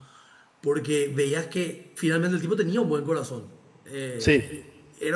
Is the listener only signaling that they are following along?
Yes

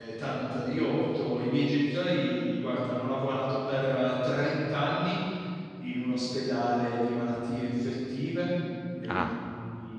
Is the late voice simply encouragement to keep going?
Yes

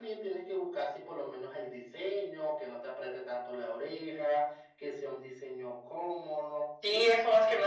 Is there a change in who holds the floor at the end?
Yes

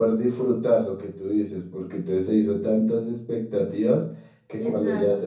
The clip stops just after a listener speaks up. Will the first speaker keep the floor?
Yes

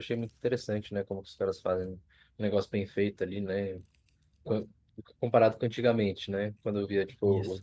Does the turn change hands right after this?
No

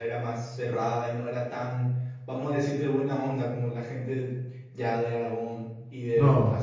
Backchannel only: No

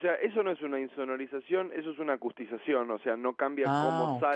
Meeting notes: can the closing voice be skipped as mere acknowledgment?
Yes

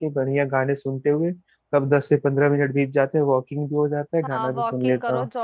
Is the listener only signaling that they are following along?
No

